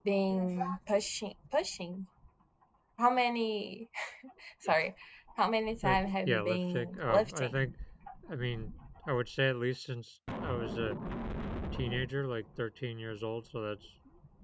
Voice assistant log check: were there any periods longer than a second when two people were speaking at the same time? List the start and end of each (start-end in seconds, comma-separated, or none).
5.8-7.5